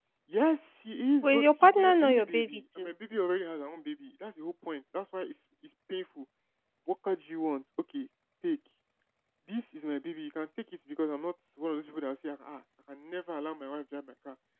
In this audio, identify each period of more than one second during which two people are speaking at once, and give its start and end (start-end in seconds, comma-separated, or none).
1.2-2.9